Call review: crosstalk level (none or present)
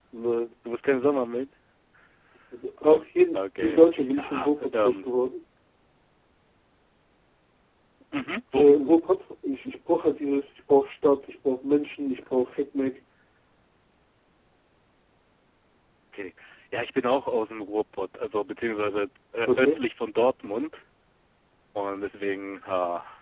present